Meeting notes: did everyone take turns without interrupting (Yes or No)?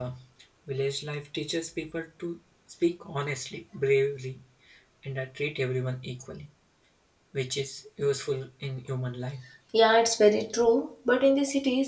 Yes